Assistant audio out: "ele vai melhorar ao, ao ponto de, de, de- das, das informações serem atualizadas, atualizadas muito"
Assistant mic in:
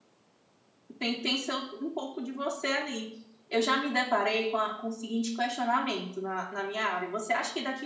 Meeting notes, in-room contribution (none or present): present